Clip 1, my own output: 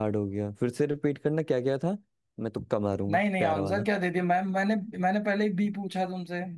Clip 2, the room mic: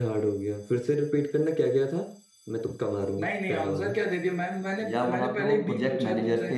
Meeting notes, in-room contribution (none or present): present